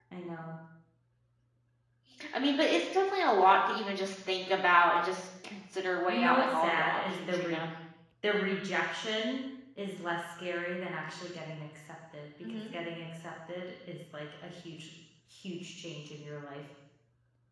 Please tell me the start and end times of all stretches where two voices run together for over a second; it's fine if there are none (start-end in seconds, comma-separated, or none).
6.1-7.6